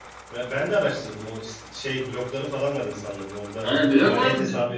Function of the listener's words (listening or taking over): taking over